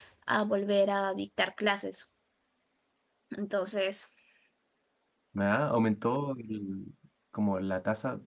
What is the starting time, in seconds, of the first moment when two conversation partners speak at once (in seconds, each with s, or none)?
none